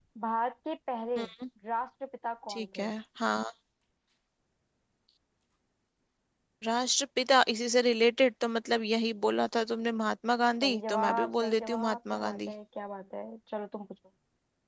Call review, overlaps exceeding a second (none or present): present